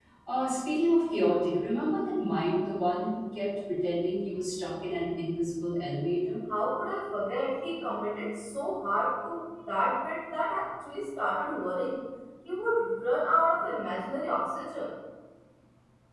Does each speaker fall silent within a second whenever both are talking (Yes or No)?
Yes